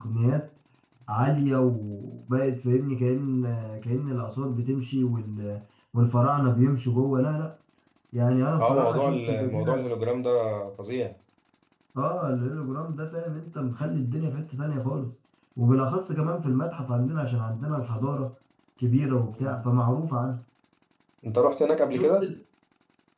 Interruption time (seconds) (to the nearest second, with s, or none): 9 s